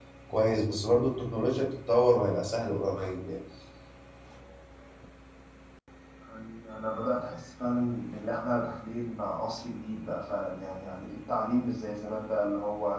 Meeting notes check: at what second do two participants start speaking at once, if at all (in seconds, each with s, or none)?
none